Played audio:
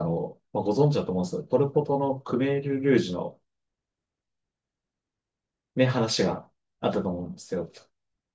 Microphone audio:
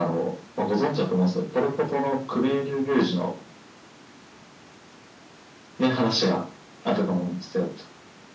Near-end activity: none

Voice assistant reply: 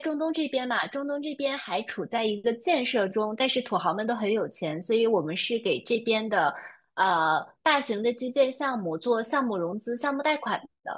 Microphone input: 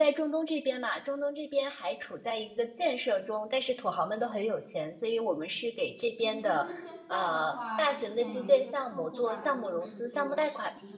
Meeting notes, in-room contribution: present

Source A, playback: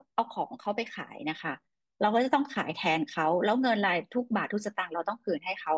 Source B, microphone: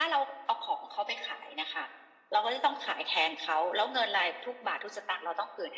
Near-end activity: none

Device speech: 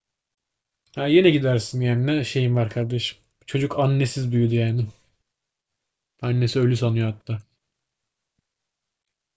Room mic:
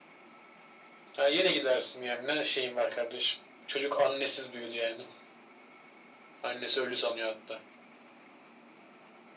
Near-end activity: none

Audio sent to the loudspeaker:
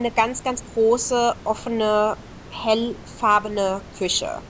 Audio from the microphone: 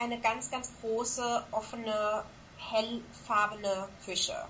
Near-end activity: none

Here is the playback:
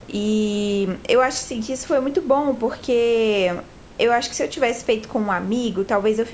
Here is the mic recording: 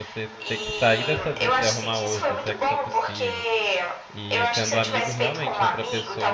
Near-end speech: present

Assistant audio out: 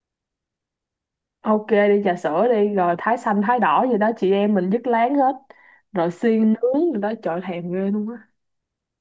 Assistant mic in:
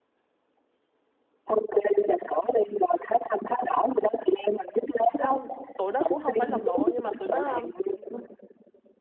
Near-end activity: present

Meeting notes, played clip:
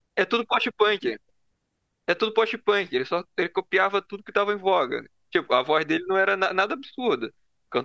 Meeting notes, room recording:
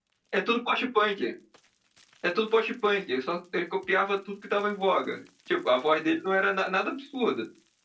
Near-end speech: none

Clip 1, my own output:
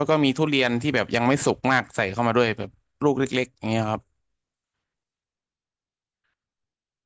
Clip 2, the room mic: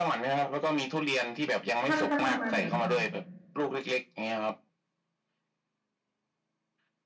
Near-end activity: present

